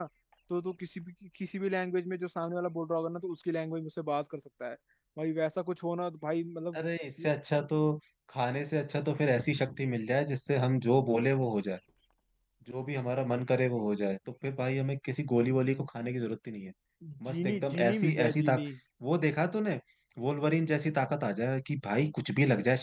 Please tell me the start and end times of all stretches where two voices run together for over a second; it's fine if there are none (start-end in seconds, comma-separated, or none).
17.3-18.6